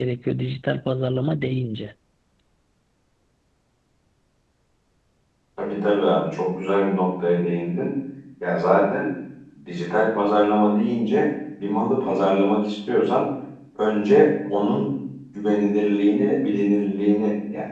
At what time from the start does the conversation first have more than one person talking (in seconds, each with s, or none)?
none